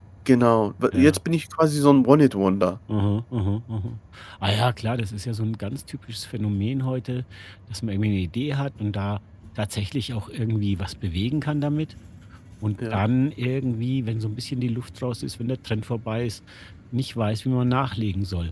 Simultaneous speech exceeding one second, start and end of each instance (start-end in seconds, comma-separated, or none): none